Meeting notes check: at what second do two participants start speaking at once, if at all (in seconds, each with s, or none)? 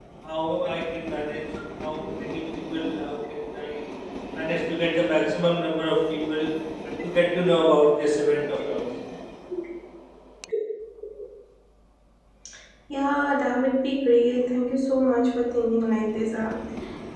none